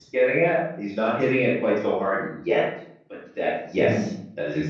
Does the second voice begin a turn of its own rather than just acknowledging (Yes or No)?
No